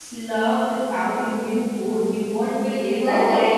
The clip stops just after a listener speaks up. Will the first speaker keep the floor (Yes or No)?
Yes